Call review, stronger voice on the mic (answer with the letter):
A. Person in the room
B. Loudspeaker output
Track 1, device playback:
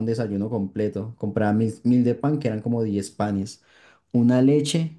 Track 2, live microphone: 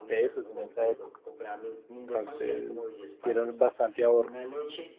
A